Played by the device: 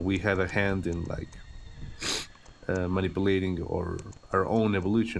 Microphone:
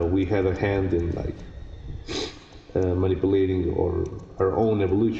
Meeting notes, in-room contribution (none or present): none